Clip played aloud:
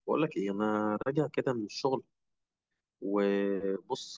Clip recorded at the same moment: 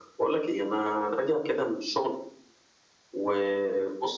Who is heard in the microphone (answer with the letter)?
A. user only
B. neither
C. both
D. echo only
D